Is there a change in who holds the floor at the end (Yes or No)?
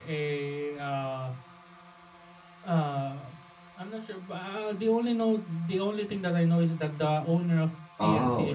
Yes